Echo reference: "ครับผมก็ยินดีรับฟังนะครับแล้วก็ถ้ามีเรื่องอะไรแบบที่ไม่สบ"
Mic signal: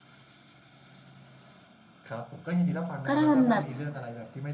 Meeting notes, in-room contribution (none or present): present